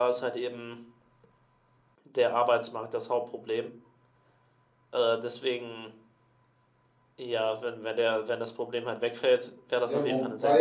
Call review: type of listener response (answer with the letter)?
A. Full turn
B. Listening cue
A